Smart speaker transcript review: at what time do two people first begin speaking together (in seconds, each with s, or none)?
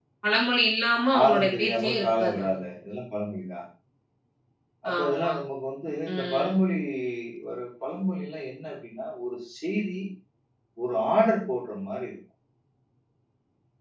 1.2 s